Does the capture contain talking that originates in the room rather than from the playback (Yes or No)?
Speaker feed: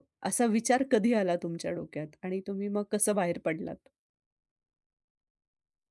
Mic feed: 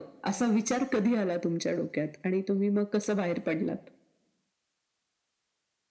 No